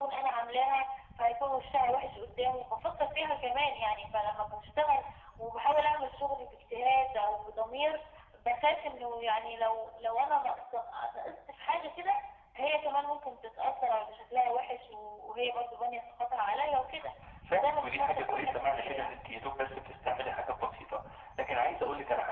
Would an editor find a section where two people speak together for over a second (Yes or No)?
Yes